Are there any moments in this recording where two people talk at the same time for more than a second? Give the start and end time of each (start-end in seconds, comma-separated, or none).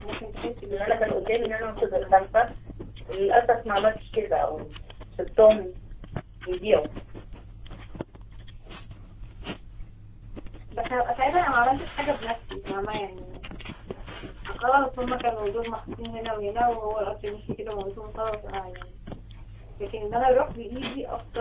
0.7-2.2